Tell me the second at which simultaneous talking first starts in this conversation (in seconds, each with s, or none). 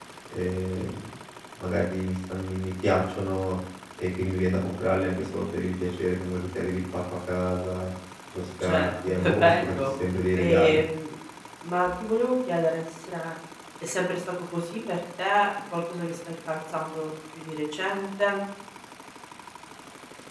8.6 s